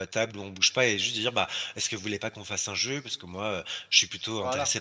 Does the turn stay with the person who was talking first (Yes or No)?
Yes